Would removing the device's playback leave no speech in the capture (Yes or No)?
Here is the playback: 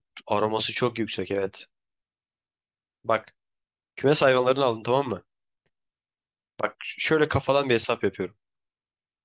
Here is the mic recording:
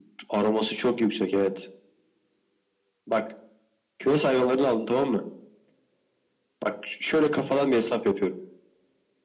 Yes